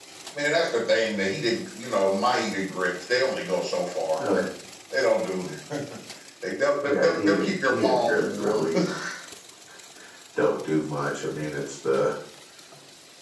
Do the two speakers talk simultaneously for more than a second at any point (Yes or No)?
Yes